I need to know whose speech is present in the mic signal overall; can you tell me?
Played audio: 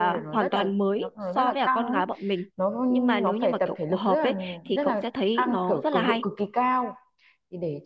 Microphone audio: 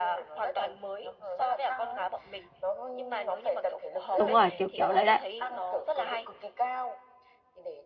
both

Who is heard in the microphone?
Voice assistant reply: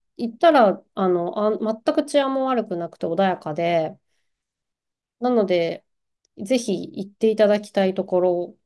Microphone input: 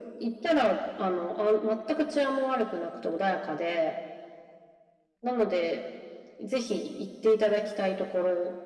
echo only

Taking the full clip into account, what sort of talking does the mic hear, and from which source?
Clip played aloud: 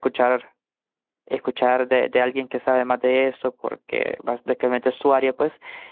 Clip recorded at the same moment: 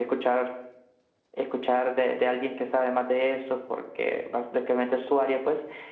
echo only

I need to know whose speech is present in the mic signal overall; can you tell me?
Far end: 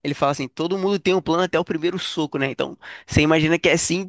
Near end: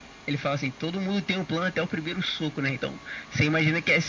echo only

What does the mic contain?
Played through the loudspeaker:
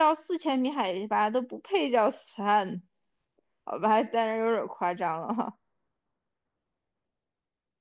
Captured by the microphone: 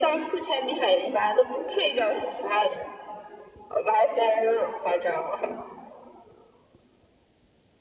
echo only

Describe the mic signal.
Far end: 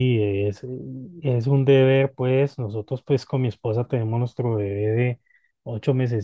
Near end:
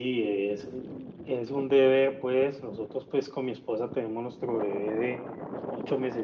echo only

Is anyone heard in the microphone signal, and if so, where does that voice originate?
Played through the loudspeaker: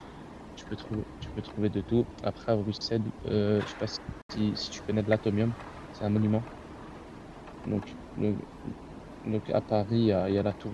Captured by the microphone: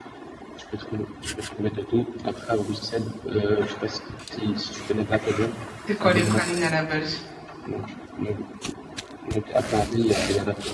both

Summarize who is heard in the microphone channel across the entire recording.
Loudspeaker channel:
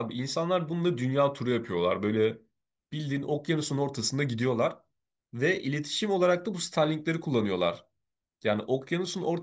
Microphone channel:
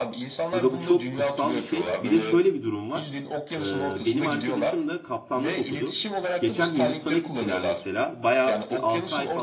both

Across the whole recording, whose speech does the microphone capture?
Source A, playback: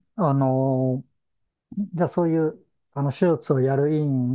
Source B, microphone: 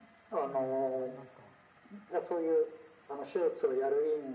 both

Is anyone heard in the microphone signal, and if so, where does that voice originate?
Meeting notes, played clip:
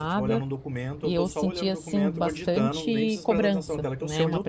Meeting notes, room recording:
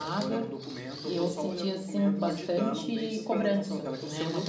echo only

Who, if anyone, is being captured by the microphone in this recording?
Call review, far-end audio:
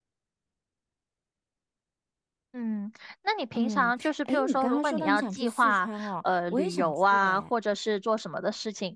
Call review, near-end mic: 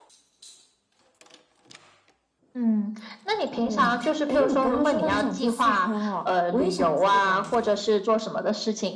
echo only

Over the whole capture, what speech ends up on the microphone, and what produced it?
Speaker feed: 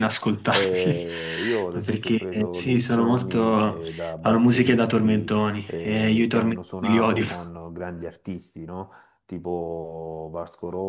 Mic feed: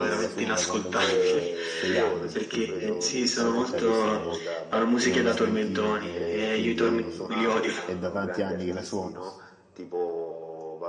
both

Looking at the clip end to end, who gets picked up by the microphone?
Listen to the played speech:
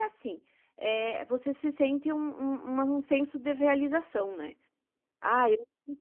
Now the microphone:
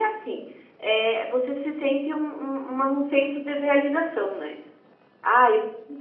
echo only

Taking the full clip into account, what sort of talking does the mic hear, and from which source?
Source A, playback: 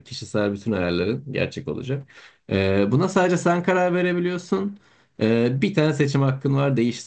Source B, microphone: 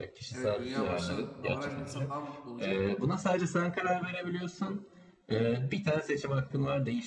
both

